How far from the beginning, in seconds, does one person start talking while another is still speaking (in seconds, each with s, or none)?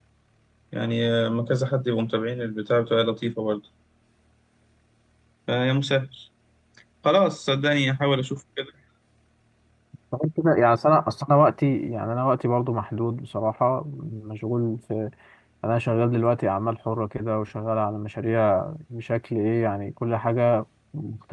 none